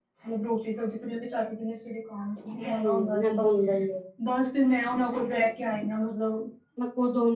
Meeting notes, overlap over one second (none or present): none